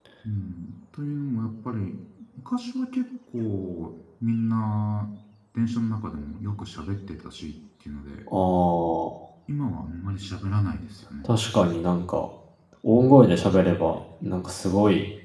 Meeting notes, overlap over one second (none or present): none